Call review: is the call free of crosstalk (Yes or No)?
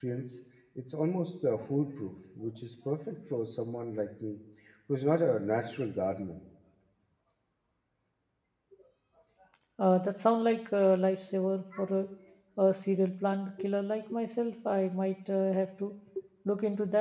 Yes